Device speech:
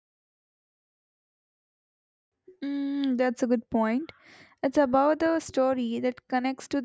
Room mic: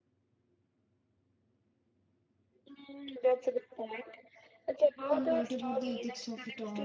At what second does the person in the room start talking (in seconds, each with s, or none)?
5.1 s